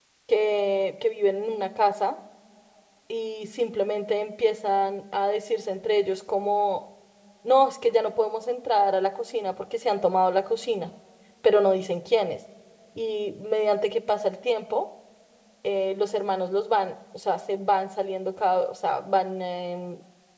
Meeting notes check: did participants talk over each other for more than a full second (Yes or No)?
No